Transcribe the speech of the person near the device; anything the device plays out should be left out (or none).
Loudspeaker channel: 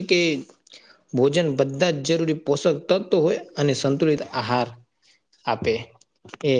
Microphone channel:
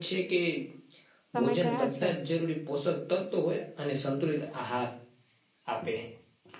તમે કયાં છે